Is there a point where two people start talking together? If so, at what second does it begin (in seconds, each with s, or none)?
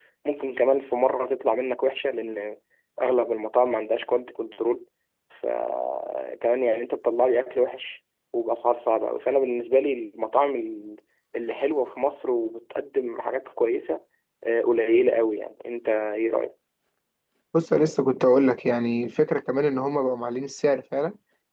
none